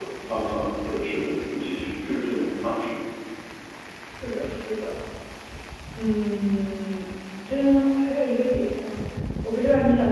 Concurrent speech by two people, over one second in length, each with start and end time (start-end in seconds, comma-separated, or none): none